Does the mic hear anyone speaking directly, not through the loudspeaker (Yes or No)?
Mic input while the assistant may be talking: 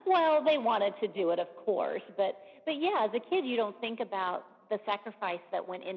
No